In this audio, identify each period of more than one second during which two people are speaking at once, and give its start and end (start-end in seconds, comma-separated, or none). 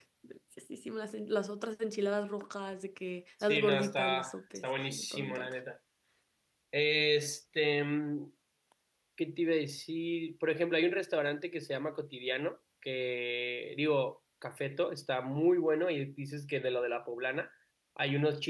3.4-5.5